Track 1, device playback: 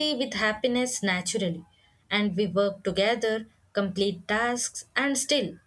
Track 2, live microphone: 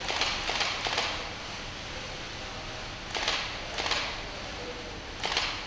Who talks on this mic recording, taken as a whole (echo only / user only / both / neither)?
neither